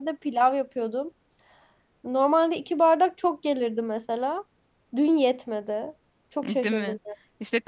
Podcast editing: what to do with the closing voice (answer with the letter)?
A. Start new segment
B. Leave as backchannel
A